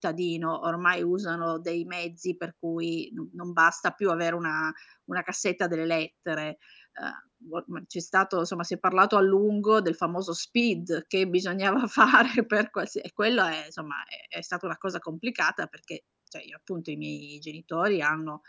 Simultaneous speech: No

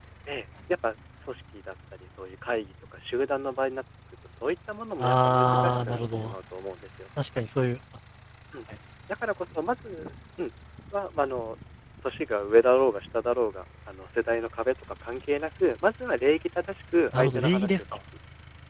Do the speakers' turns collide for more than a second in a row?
Yes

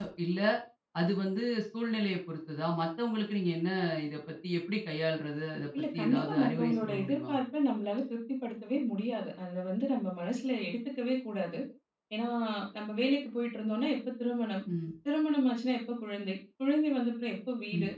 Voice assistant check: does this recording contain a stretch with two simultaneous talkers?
Yes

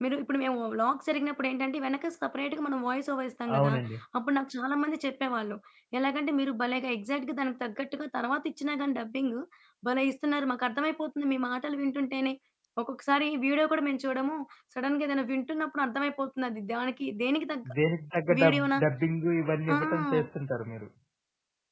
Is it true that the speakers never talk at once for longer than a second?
Yes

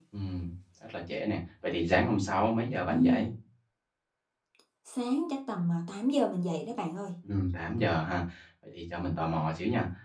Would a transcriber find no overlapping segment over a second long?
Yes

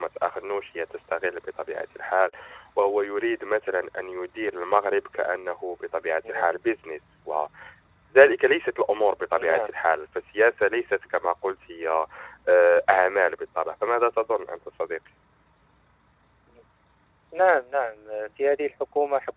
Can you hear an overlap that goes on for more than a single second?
No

